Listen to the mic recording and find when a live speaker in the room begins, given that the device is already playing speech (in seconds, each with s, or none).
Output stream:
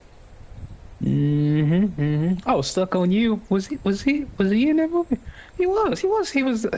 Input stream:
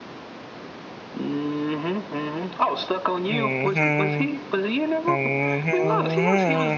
3.3 s